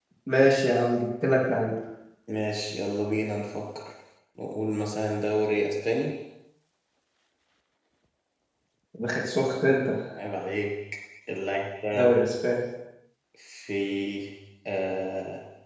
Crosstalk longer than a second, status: none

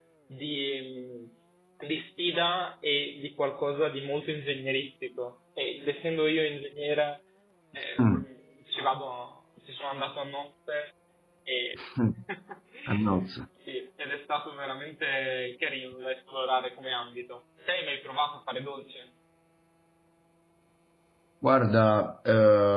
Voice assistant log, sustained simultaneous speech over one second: none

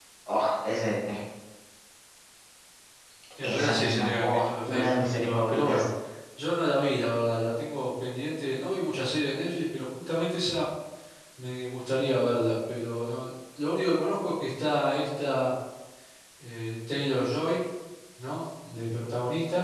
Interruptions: present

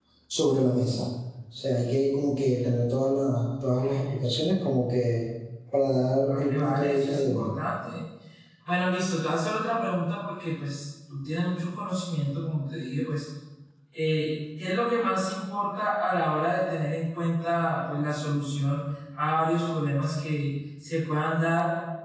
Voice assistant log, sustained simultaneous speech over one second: present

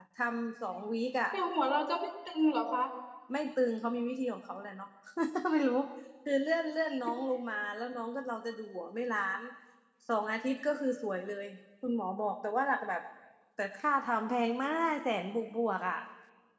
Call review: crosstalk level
none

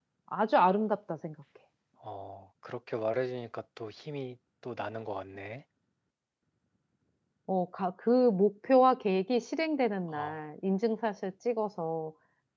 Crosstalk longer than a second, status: none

